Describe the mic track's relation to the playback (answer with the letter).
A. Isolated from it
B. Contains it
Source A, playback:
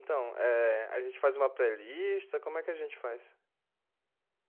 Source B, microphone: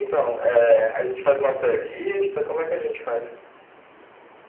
B